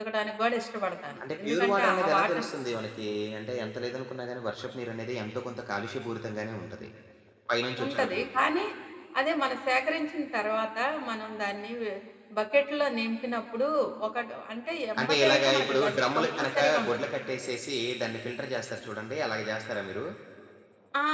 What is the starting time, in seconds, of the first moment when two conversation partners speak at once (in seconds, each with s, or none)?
1.2 s